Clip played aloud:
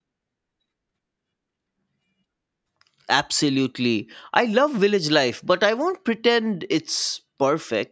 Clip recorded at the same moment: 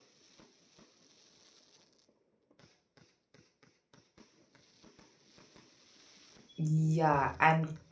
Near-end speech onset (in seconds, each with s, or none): 6.6 s